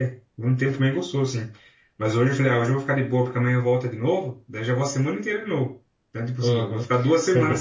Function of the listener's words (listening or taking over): taking over